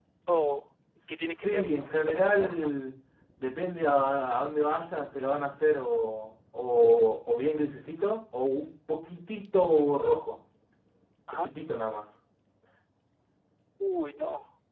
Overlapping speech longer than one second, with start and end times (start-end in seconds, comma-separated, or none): 1.1-2.7